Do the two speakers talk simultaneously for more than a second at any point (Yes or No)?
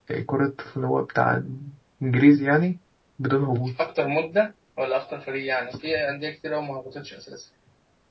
No